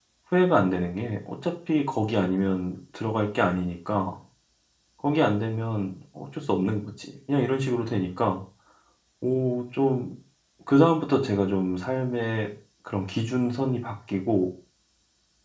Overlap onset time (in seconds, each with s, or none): none